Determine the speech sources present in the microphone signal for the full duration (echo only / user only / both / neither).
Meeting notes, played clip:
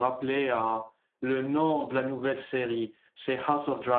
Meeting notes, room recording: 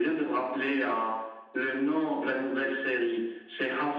echo only